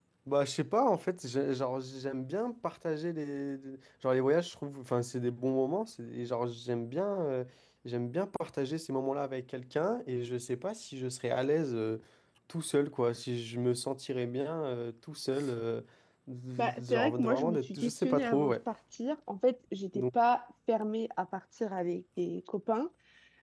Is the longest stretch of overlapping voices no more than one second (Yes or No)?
No